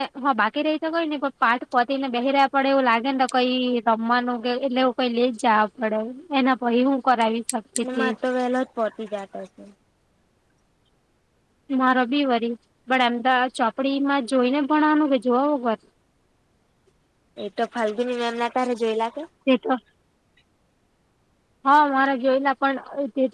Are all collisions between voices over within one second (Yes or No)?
Yes